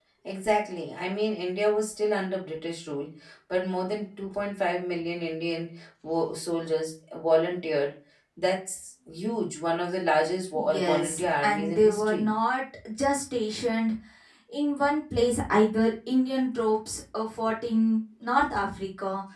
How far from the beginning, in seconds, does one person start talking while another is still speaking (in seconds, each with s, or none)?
10.6 s